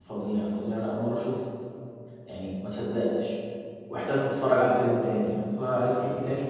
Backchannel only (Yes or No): Yes